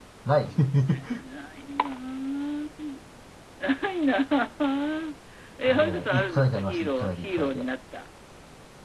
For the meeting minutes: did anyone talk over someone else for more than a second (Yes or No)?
Yes